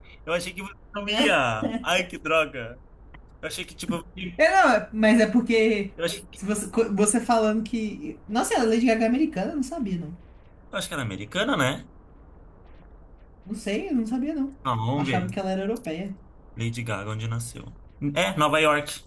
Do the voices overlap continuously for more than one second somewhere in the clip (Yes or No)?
No